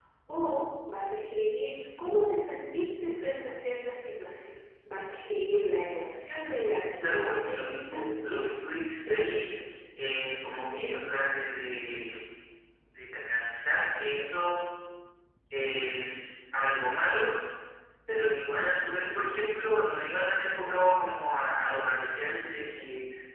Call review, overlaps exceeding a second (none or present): present